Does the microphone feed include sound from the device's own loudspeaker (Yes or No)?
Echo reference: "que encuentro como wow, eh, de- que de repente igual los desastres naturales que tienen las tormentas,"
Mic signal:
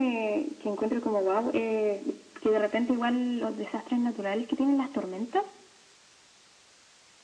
Yes